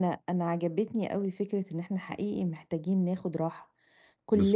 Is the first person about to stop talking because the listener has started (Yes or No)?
No